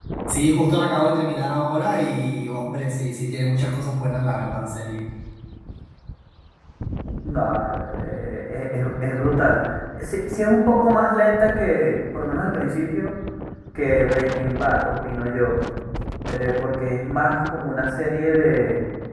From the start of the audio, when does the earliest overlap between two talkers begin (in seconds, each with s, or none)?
none